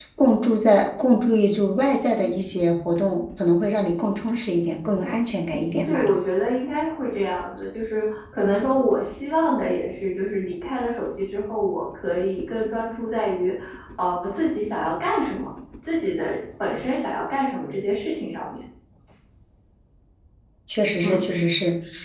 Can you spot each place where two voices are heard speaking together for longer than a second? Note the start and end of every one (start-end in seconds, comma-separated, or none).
none